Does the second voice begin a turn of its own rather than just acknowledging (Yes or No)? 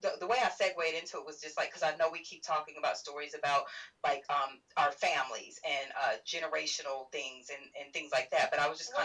Yes